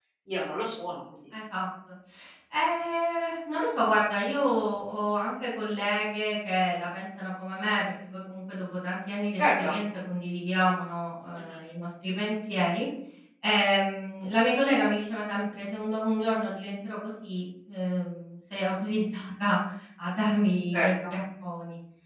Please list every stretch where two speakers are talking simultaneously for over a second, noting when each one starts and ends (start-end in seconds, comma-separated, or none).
none